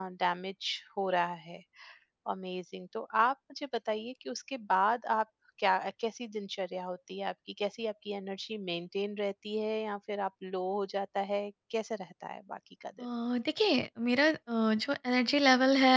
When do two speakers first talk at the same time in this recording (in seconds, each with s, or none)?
none